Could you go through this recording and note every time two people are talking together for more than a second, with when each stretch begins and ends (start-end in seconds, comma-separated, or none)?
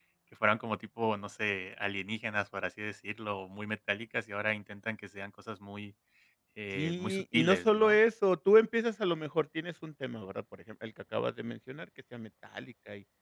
6.8-8.0